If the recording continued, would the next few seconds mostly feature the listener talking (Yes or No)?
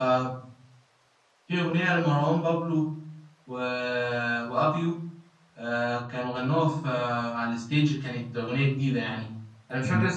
No